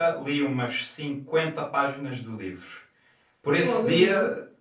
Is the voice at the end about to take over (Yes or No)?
No